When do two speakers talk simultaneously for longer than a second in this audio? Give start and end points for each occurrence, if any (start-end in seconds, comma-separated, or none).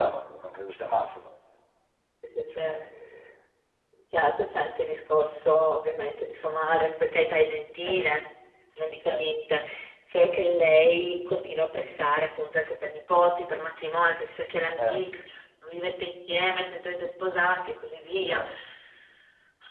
none